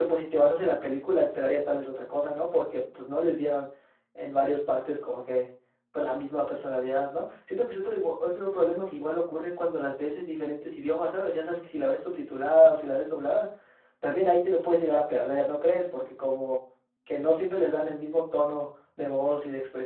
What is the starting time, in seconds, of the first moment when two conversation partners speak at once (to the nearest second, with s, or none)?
none